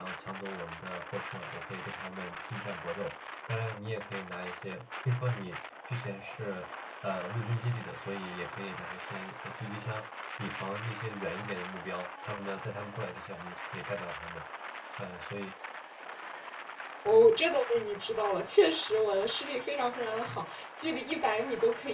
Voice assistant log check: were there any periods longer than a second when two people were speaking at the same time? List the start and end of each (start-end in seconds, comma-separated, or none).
none